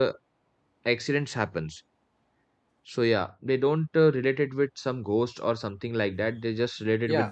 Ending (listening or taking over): taking over